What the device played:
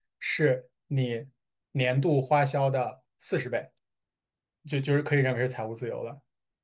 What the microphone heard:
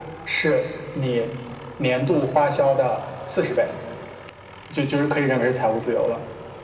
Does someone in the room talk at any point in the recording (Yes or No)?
No